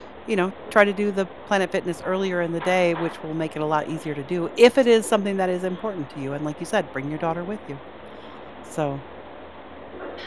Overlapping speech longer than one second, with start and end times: none

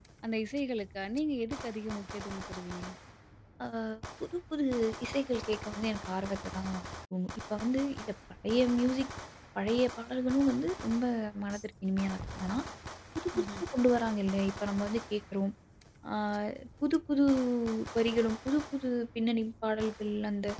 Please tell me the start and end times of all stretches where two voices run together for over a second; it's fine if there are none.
none

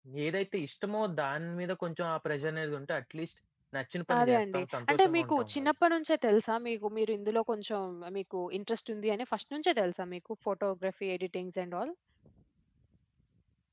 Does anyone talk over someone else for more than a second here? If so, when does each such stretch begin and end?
4.2-5.7

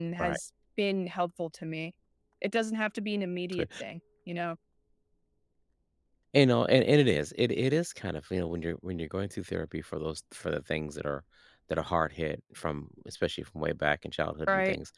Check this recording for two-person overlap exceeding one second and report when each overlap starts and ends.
none

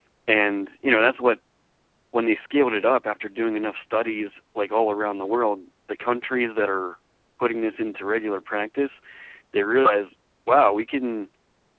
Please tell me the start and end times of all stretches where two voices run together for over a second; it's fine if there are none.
none

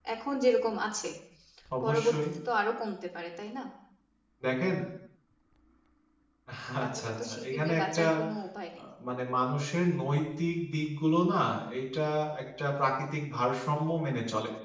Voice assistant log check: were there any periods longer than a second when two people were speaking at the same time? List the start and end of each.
6.8-8.0

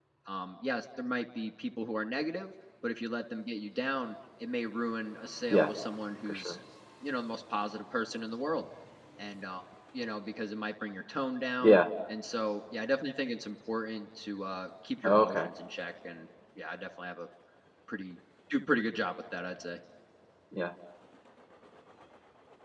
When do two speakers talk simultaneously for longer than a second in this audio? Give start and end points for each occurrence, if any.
none

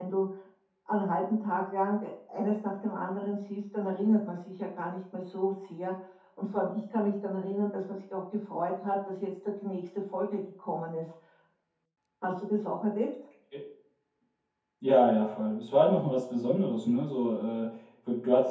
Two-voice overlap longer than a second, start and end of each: none

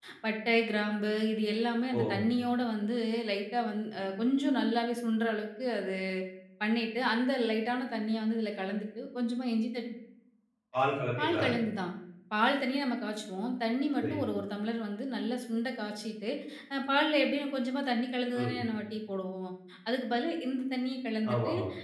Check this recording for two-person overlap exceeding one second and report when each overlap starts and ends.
none

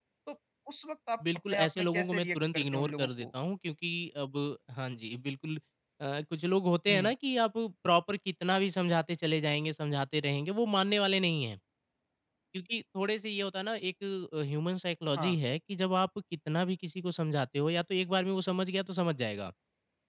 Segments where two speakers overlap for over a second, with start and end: 1.5-3.3

